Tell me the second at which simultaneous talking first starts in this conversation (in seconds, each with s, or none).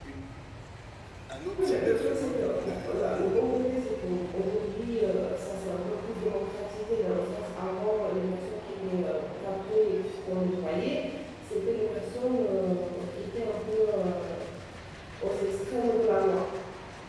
1.6 s